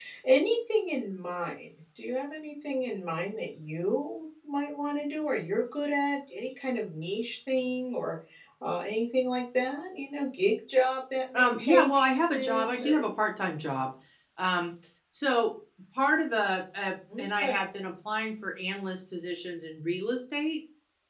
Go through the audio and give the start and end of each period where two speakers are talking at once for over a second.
11.3-13.0

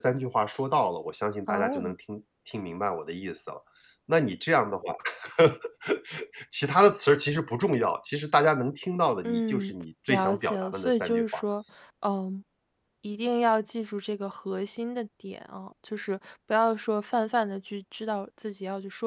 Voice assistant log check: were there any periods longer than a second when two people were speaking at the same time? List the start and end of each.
10.1-11.4

